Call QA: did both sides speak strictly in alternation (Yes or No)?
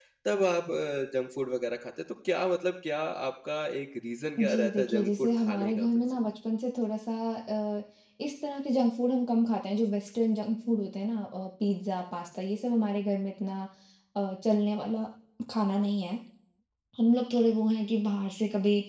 No